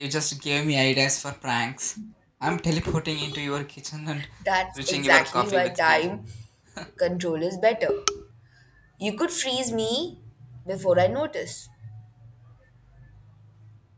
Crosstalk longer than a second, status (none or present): present